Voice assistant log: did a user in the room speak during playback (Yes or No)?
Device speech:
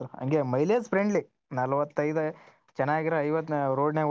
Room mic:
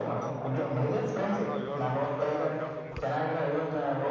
Yes